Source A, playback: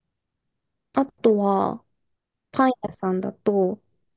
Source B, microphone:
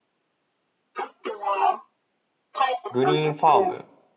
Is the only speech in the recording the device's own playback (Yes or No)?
No